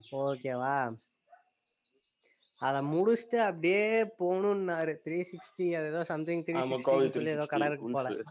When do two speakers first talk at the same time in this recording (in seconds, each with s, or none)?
6.5 s